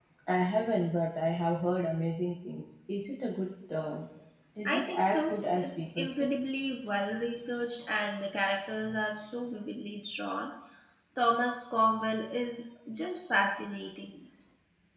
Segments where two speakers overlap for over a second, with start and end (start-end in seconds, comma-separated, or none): 4.7-6.3